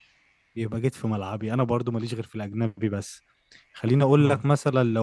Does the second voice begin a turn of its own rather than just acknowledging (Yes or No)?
No